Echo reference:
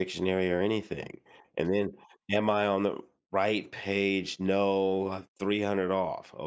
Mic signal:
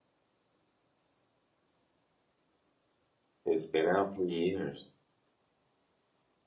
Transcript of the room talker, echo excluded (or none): It's been out for years.